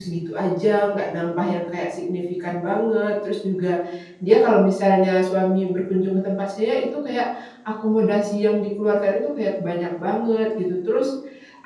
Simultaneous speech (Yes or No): No